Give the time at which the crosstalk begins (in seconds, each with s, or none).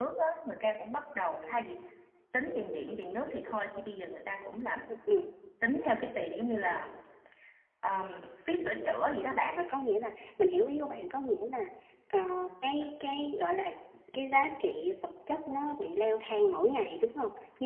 none